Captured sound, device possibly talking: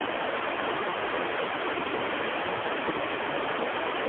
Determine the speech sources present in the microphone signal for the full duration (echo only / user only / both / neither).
neither